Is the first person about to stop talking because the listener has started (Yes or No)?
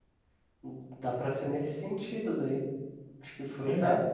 Yes